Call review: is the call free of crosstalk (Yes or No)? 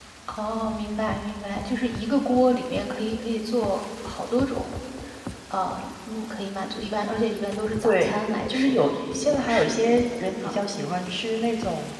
No